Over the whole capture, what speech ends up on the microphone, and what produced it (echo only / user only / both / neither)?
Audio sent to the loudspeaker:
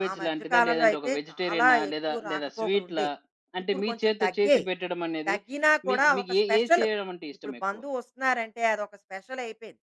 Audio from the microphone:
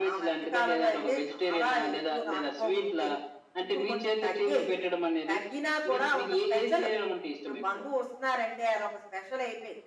echo only